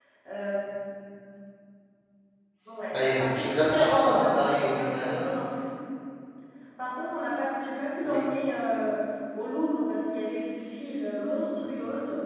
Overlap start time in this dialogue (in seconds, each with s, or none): 2.9 s